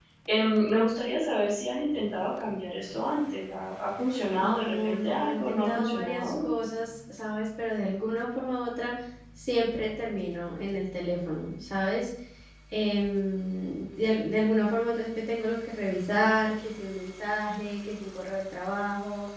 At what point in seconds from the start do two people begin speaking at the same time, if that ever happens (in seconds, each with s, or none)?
4.4 s